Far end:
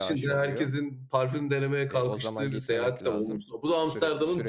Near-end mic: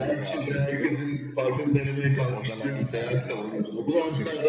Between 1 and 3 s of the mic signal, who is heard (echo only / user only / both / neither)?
echo only